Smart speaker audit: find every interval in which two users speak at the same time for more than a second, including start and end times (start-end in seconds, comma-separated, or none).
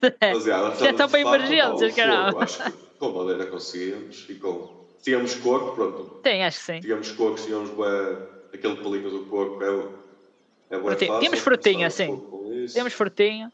0.8-2.3, 10.9-12.2